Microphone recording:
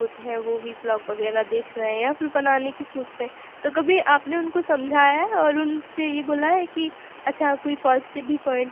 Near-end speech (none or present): present